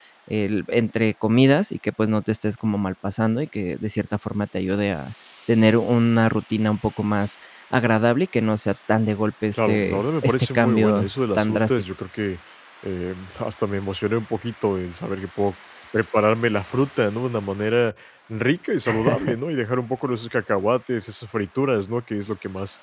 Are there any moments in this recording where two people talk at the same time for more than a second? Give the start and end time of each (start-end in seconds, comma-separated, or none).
9.5-11.8